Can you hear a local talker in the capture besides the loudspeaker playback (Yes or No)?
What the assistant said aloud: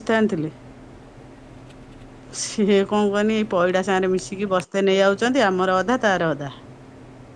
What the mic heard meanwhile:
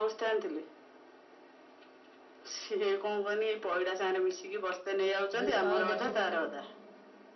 Yes